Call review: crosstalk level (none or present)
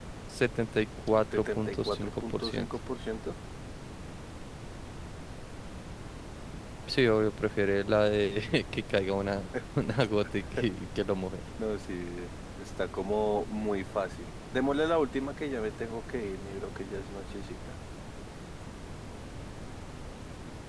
present